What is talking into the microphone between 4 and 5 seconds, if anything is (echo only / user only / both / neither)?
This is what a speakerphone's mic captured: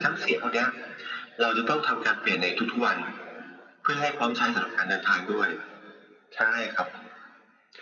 echo only